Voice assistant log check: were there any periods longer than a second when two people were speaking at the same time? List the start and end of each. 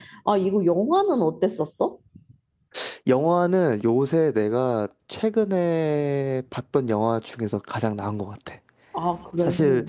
none

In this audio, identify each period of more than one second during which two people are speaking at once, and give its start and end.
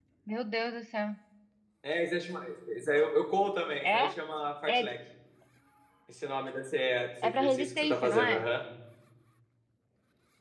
7.2-8.4

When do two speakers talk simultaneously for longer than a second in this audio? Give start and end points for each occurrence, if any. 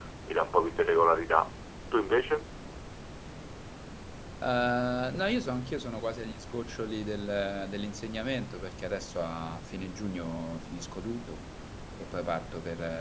none

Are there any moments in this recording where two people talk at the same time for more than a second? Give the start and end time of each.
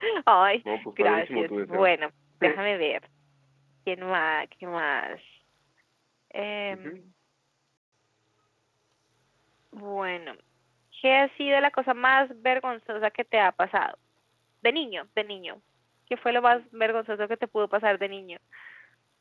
0.7-1.9

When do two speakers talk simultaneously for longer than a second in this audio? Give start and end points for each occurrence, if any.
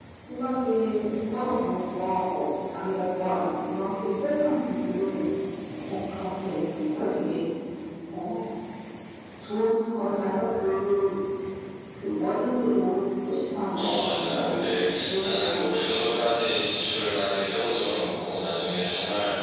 13.8-15.8

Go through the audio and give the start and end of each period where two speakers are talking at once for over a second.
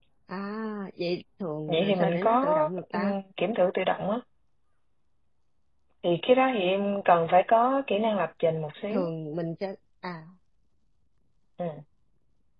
1.7-3.1

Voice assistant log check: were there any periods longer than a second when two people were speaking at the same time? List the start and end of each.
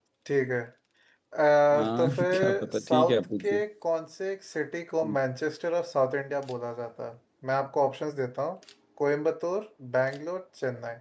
1.7-3.6

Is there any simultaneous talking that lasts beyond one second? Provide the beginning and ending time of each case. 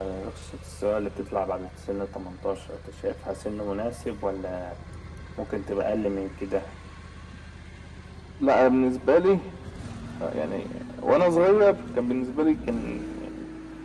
none

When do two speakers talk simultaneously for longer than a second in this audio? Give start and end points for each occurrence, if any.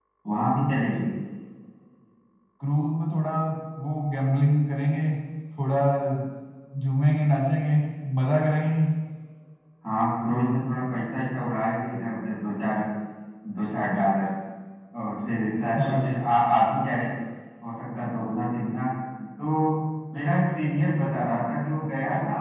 none

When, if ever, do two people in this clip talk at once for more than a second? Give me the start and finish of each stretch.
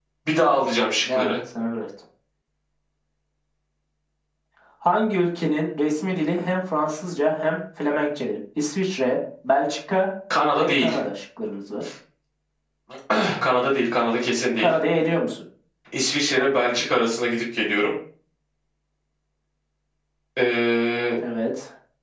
none

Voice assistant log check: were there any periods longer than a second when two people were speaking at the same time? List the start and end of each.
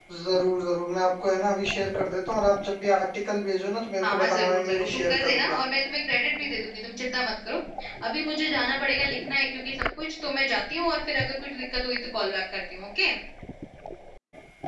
4.0-5.6

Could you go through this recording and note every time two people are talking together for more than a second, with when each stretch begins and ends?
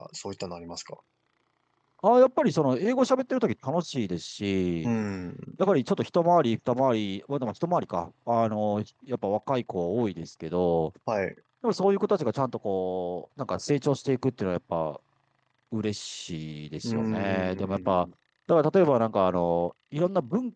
16.8-18.0

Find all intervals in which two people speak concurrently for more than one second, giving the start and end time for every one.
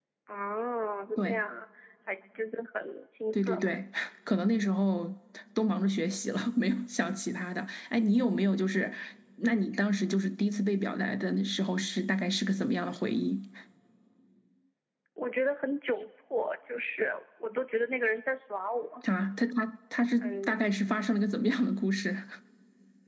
none

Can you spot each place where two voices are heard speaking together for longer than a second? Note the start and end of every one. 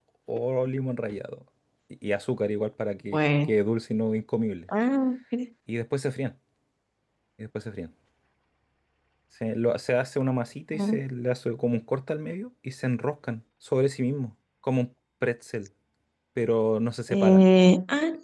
none

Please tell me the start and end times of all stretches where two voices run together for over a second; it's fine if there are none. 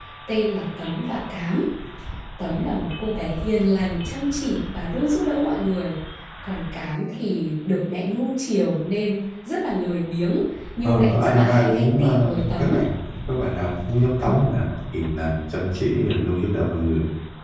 10.8-12.8

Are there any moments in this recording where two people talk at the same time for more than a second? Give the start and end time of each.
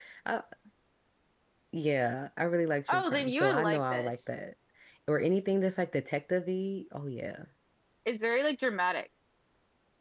2.9-4.1

